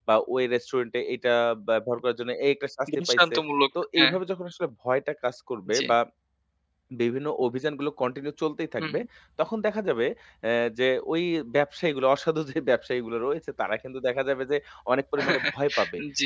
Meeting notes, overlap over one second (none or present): none